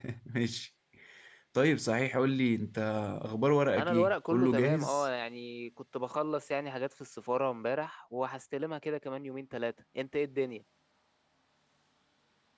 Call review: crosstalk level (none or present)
present